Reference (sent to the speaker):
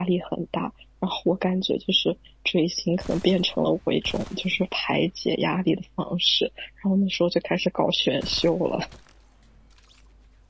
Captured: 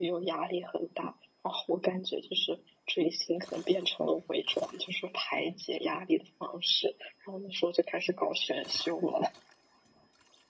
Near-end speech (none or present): none